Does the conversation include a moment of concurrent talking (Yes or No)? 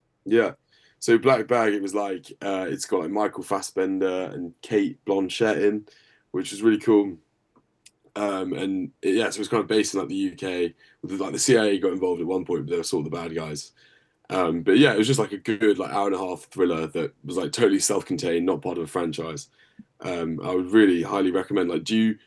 No